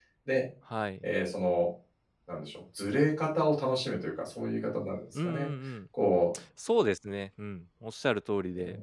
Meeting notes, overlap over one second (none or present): none